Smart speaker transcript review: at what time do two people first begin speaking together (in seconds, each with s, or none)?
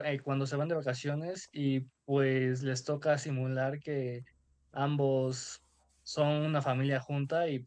none